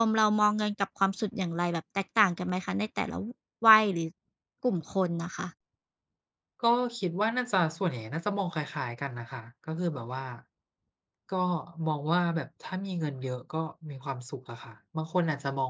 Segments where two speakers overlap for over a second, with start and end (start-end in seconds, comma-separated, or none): none